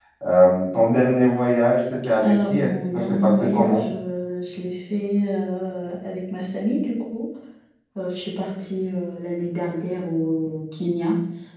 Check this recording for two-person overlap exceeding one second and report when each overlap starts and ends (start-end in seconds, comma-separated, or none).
2.2-3.9